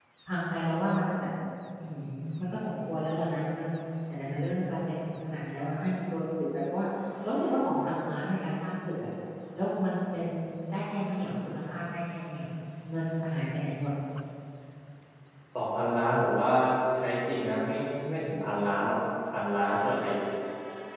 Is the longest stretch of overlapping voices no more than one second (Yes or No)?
Yes